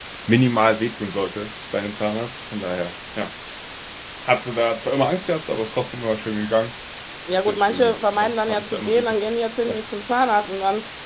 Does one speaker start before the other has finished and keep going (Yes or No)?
Yes